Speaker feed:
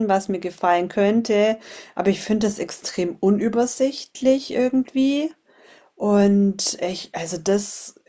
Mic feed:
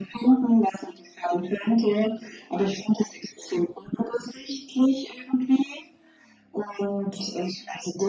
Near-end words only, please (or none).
none